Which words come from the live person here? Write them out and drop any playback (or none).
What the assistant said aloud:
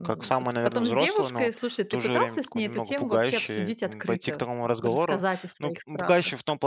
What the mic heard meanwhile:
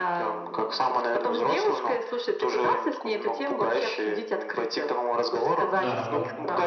Да.